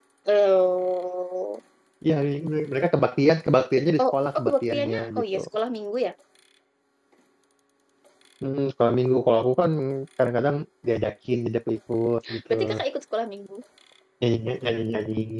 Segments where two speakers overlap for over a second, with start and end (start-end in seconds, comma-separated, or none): 4.0-5.4